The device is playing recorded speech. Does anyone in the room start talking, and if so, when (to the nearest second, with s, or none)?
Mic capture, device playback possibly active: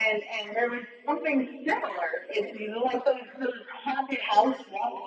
none